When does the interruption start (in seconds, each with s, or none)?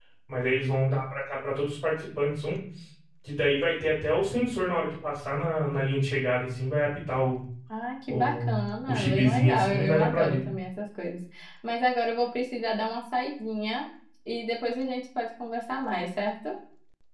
8.1 s